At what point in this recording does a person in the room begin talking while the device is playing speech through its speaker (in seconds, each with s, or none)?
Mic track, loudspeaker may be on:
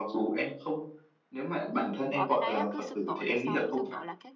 2.1 s